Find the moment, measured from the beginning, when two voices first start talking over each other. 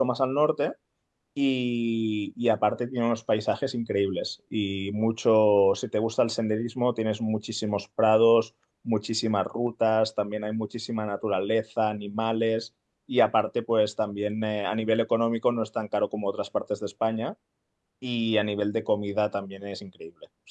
none

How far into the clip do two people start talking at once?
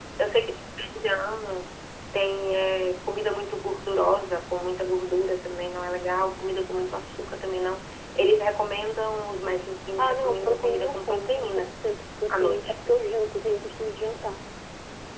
10.0 s

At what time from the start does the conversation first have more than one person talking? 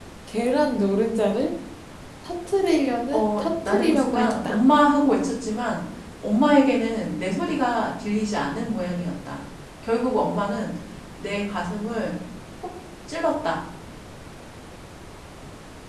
3.1 s

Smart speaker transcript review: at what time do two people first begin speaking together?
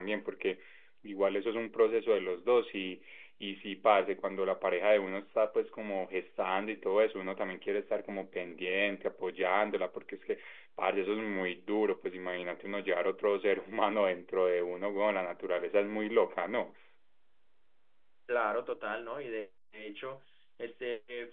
none

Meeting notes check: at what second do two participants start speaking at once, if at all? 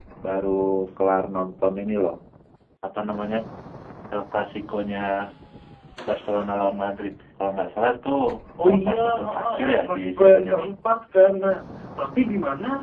8.7 s

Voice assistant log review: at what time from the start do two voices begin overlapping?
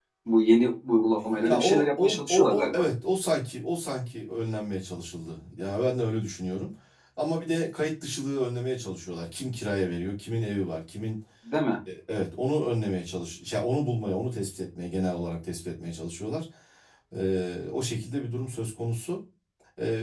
1.2 s

